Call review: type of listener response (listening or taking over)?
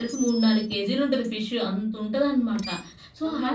listening